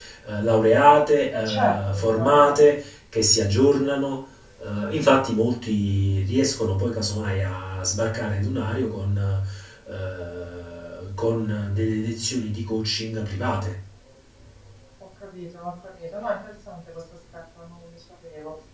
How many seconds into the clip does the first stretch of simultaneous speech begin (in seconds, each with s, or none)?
1.3 s